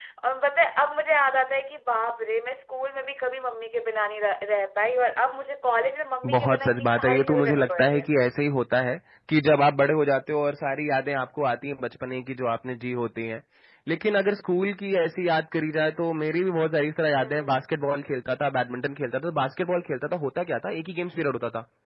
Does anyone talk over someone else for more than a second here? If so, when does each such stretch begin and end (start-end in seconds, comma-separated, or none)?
6.2-8.1